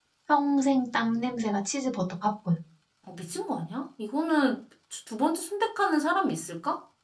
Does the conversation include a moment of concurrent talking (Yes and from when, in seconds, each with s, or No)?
No